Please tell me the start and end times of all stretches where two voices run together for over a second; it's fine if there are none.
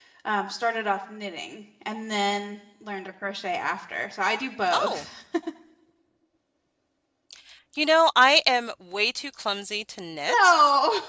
none

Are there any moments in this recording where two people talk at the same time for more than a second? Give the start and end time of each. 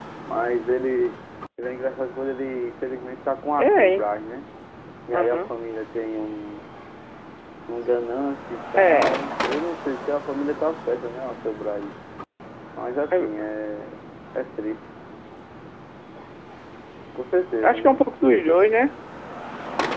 none

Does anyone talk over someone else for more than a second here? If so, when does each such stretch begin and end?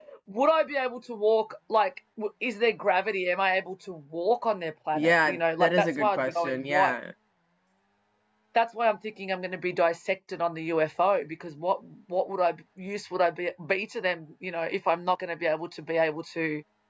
4.9-7.0

